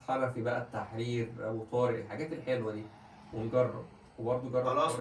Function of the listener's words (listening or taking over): taking over